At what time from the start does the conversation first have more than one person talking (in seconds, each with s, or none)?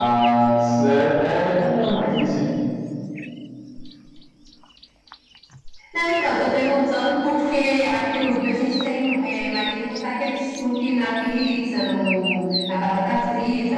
none